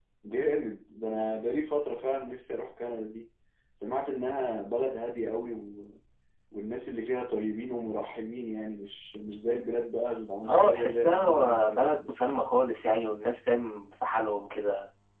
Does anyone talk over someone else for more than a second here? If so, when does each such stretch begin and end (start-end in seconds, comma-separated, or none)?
10.5-11.9